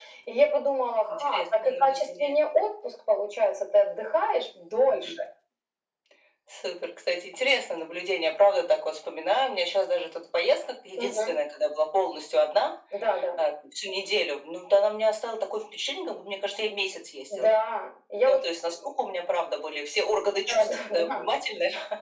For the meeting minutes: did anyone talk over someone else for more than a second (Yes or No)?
Yes